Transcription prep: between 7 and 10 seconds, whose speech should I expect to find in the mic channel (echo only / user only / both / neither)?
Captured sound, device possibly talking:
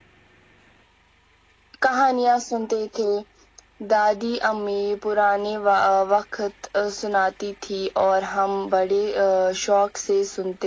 echo only